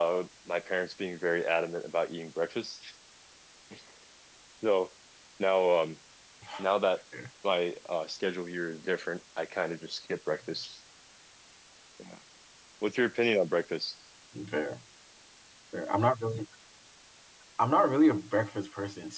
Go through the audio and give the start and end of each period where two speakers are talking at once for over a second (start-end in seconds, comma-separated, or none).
none